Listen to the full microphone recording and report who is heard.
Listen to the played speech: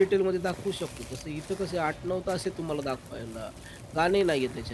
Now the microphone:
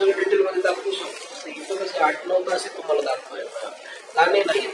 echo only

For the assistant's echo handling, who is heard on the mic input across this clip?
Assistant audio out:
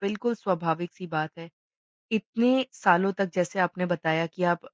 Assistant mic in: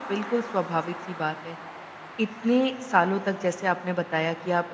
echo only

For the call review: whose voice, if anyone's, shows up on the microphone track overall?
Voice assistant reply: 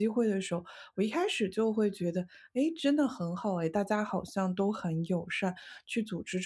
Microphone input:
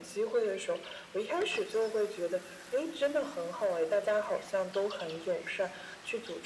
echo only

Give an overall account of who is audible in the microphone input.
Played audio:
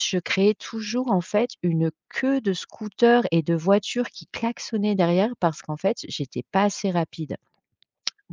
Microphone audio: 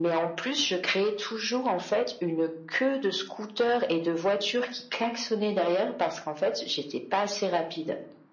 echo only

